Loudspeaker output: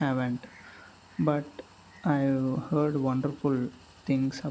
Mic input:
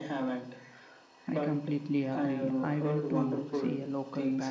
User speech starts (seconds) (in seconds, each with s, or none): 1.3 s